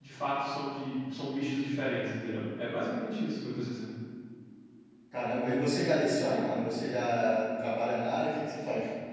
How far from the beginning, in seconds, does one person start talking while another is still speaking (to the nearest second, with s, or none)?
none